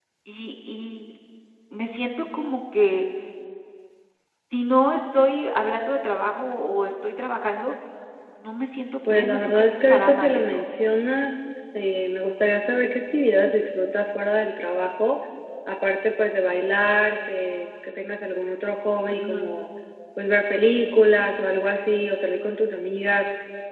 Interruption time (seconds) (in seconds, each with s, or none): 9.1 s